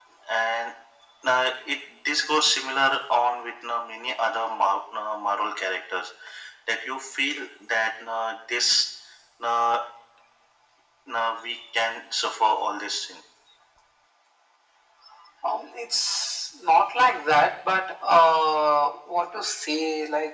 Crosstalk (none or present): none